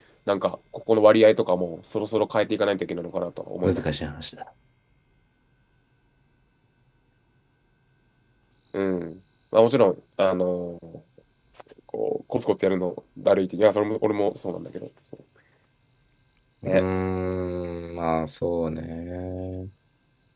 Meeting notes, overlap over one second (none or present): none